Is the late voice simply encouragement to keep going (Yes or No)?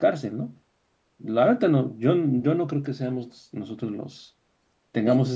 Yes